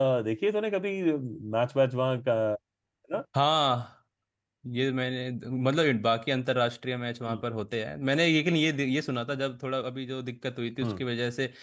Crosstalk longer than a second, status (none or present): none